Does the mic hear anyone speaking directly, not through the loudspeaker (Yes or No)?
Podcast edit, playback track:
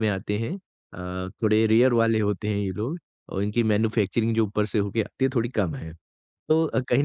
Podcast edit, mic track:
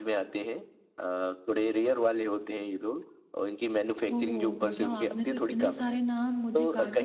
Yes